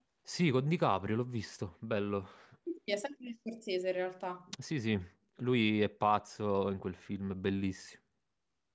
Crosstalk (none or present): none